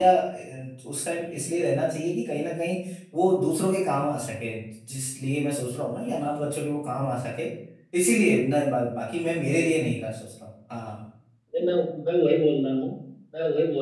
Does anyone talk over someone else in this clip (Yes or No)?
No